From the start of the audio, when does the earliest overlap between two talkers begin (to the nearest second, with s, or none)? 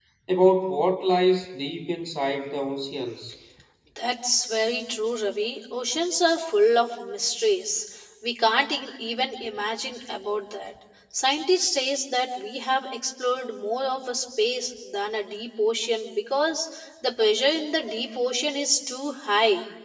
none